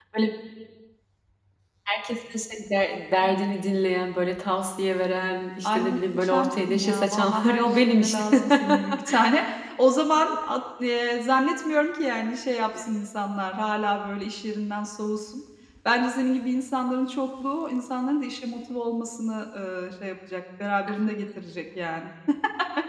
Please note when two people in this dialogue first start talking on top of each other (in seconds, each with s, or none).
5.6 s